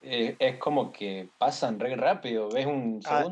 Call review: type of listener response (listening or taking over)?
taking over